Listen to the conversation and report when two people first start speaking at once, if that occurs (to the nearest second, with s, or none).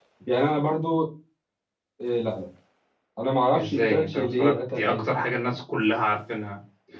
4 s